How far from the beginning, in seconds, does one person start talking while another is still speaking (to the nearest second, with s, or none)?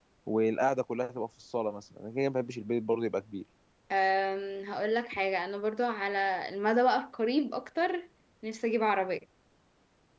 none